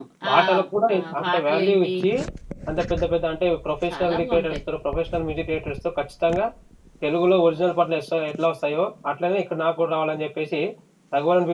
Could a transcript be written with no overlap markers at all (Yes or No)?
No